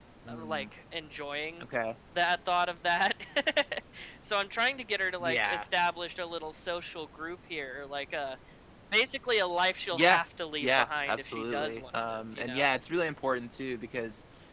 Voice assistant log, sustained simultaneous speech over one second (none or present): present